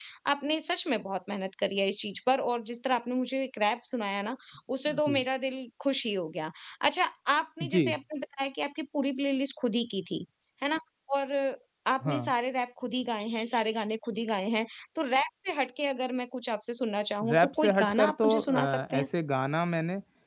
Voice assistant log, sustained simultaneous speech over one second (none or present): present